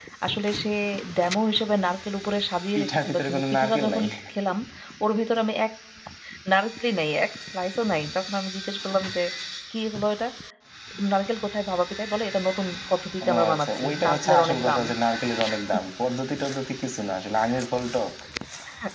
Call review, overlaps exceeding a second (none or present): present